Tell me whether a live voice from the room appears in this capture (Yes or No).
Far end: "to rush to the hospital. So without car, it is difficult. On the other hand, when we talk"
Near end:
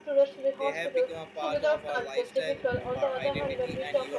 Yes